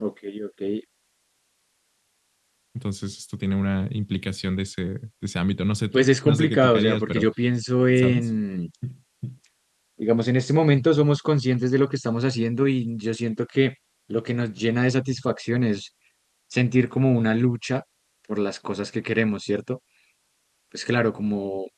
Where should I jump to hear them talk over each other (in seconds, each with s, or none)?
5.9 s